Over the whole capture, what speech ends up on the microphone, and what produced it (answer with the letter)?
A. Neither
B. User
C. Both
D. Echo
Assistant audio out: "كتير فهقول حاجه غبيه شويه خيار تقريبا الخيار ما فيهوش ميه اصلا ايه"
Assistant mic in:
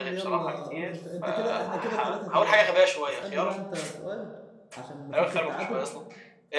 C